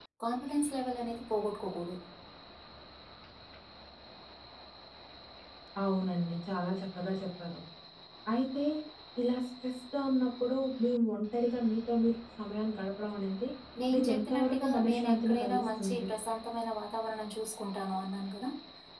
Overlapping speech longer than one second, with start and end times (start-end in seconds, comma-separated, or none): 13.9-16.0